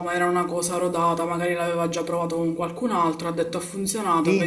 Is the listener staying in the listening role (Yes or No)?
No